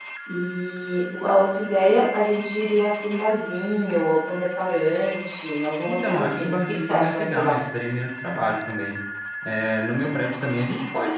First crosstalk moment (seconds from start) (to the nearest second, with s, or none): 6 s